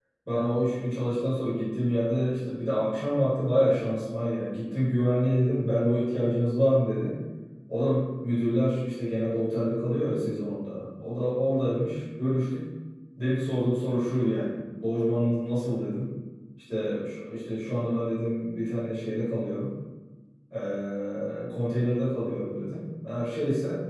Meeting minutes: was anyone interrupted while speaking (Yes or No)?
No